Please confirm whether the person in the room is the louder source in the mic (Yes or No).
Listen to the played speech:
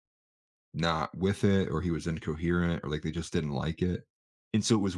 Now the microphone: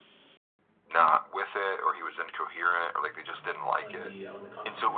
No